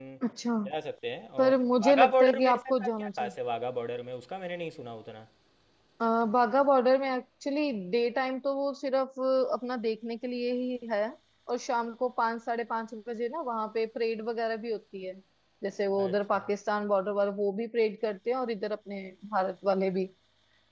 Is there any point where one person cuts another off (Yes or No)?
Yes